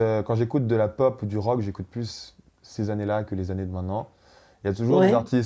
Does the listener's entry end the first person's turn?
No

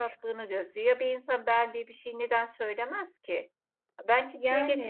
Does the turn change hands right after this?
No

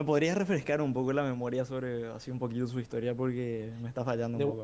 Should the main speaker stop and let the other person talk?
Yes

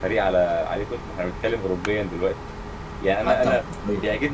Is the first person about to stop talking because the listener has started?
No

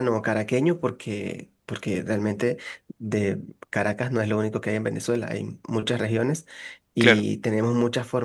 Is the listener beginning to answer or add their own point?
No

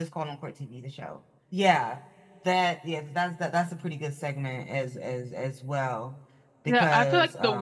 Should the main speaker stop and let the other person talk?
Yes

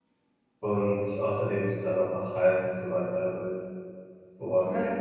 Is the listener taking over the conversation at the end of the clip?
Yes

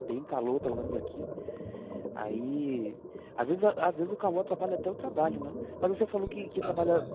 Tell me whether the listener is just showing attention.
Yes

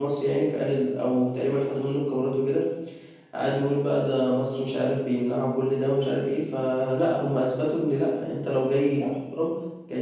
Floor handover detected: No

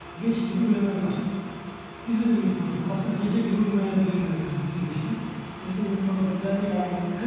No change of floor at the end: Yes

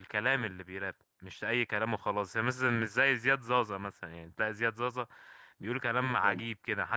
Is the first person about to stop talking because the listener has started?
No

